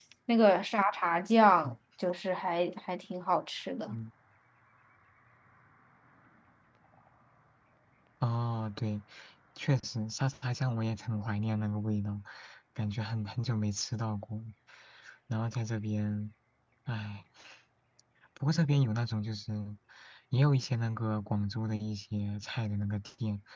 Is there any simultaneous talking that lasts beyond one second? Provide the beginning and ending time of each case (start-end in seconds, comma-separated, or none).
none